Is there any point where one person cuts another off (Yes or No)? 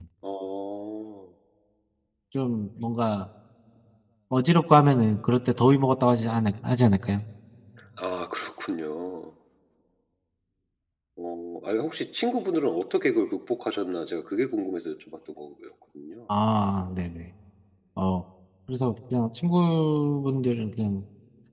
No